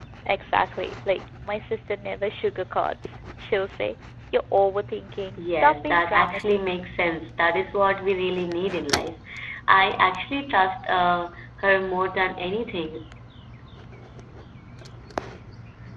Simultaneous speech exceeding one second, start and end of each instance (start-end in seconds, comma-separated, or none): 5.4-6.6